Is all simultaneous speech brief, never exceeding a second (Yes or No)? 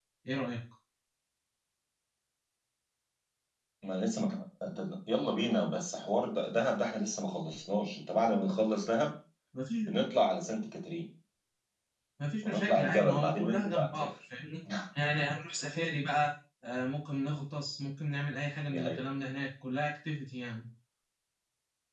No